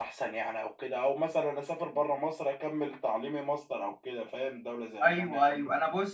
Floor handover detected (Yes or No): Yes